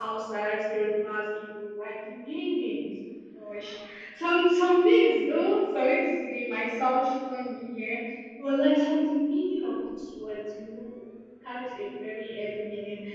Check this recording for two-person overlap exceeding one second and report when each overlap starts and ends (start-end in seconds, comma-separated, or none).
none